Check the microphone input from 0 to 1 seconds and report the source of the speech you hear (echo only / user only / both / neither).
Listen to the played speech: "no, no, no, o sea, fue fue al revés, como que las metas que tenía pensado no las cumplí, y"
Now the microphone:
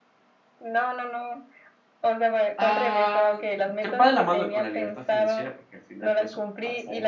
echo only